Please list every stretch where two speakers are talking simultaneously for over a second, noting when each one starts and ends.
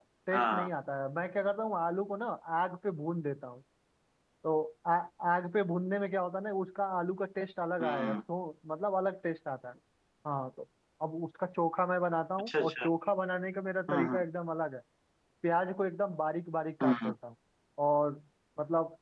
none

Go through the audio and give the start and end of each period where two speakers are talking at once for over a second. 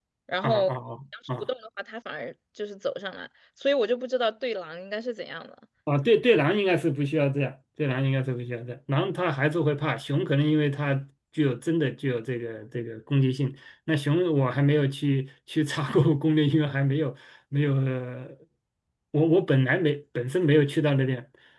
none

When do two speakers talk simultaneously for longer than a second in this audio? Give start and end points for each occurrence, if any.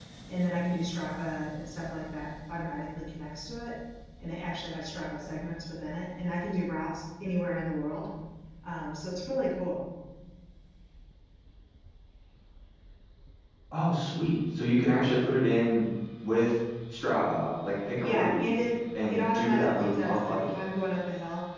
19.1-20.5

